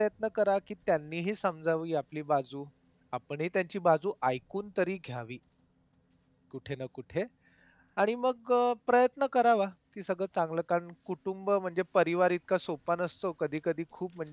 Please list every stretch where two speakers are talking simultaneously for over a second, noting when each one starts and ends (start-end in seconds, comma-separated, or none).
none